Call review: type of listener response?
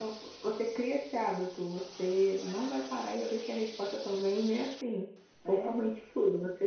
listening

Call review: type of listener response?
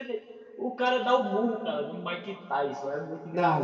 listening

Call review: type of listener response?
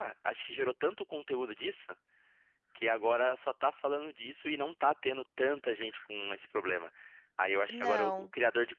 listening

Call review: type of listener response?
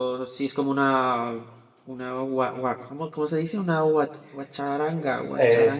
taking over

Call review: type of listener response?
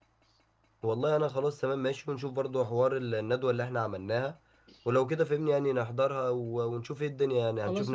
taking over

